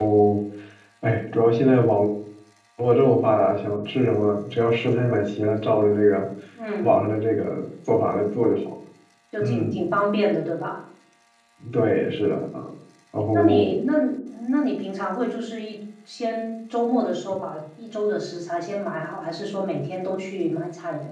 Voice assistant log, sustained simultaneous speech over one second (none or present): none